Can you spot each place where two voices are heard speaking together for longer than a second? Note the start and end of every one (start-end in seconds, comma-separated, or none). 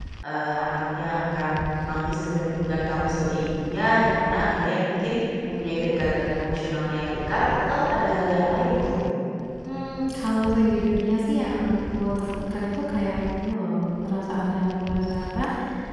none